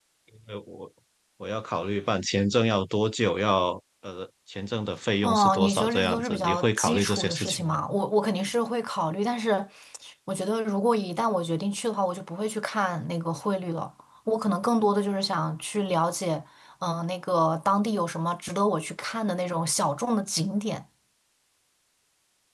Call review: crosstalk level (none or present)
present